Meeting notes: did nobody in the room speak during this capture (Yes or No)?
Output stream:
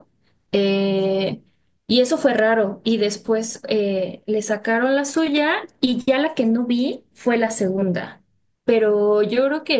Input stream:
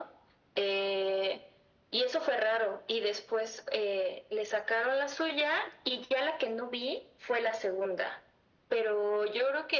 Yes